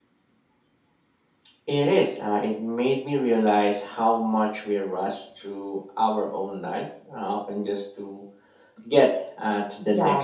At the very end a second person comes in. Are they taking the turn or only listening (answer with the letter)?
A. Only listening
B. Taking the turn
B